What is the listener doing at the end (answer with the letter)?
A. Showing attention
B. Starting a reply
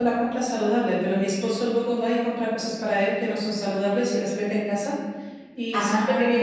A